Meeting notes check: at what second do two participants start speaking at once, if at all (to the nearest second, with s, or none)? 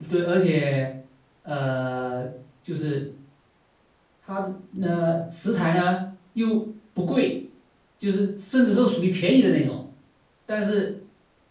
none